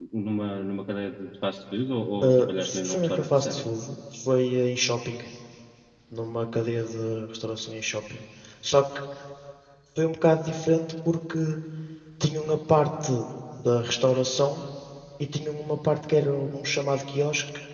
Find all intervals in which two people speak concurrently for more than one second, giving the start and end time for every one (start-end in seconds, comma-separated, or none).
2.2-3.6